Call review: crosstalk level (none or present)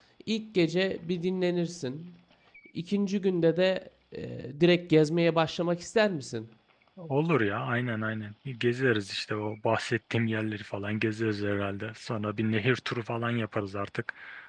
none